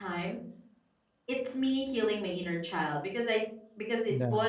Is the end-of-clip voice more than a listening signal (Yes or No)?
No